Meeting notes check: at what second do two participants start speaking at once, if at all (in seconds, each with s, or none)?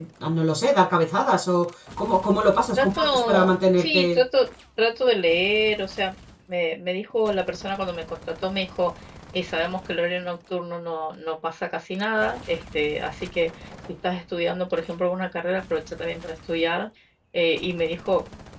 2.7 s